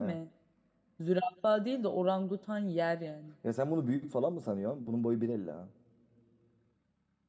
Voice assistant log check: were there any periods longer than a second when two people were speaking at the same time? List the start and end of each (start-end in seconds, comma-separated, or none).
none